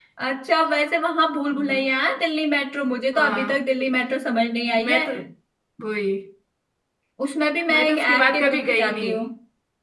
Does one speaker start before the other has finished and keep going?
Yes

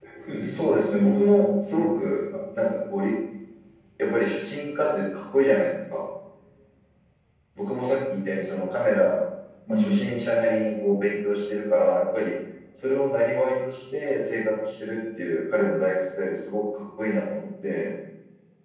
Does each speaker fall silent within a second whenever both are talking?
No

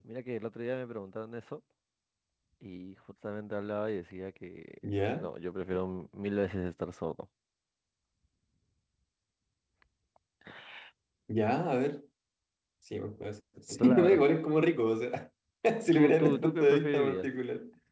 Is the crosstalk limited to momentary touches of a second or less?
No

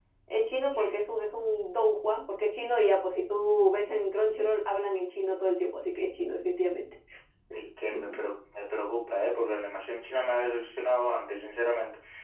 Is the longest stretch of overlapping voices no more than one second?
Yes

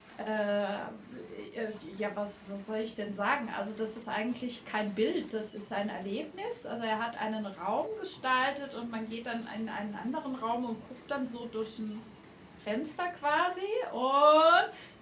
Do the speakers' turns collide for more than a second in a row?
No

